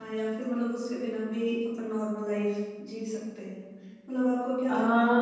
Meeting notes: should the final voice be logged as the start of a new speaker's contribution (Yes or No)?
No